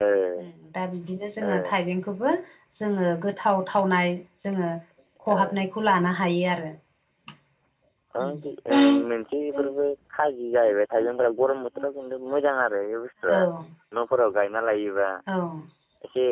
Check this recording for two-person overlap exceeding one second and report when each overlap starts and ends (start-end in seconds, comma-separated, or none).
none